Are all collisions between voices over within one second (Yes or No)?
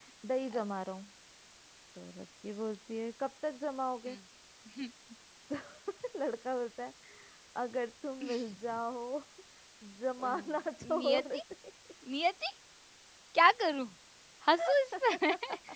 Yes